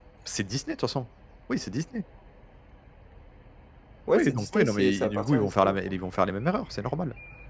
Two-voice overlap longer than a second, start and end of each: 4.1-6.0

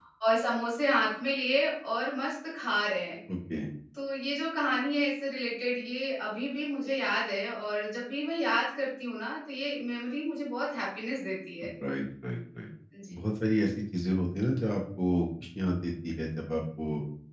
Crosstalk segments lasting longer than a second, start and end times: none

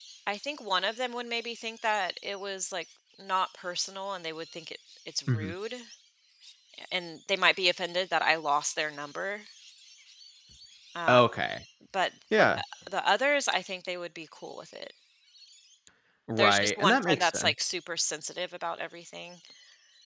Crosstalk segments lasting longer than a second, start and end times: 16.4-17.7

